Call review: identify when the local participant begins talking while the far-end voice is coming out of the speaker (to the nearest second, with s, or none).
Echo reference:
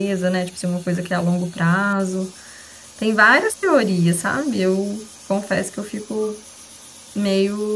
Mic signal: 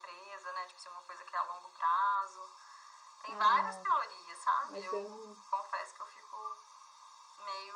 3 s